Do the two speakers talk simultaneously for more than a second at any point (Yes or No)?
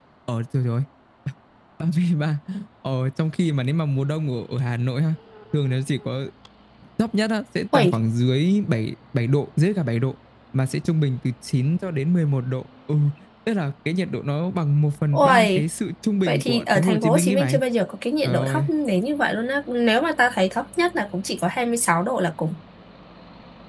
Yes